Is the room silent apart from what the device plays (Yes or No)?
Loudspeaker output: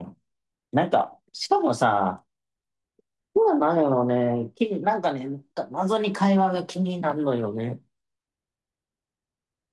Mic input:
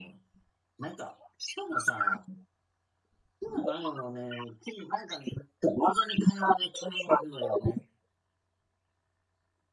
Yes